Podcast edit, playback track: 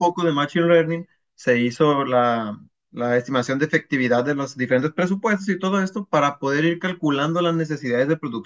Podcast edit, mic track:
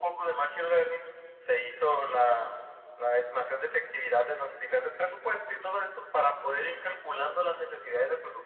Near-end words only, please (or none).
none